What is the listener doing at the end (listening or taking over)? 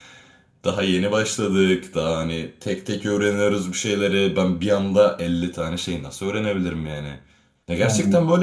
listening